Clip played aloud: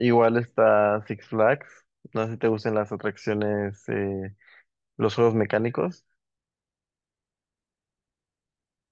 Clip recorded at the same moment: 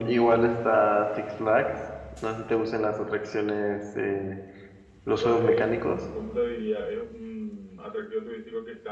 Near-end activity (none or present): present